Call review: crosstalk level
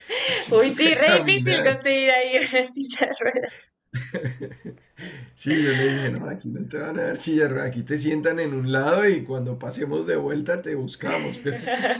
present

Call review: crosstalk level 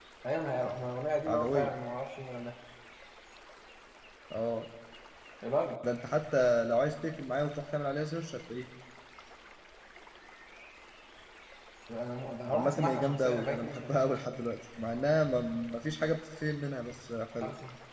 present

